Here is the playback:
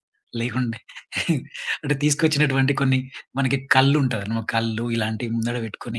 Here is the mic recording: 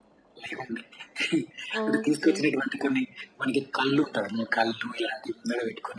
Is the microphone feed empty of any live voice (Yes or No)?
No